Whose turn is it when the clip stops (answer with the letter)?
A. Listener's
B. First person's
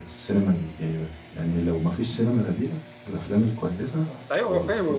A